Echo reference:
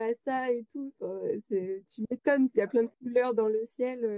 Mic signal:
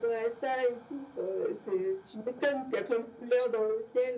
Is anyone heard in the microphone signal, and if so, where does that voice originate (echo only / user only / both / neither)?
echo only